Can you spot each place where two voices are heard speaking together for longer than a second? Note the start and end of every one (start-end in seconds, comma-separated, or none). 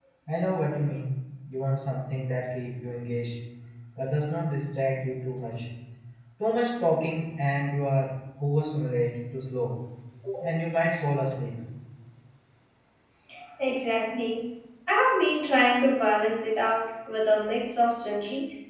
none